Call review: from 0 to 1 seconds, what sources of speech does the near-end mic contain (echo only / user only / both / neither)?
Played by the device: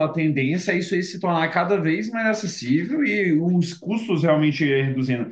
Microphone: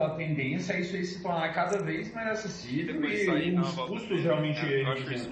echo only